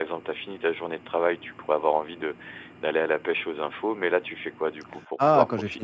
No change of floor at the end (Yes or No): No